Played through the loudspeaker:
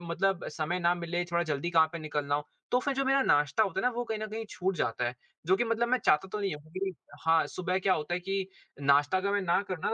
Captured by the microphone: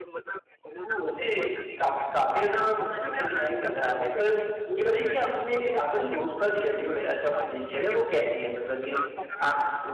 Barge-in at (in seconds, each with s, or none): 0.8 s